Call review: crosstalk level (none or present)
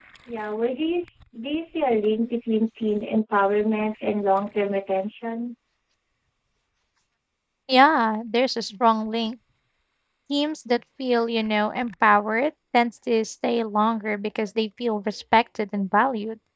none